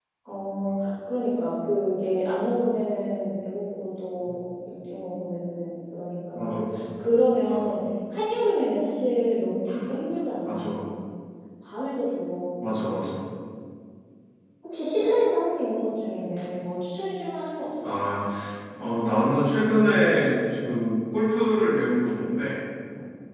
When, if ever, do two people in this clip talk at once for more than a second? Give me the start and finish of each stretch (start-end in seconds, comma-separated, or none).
none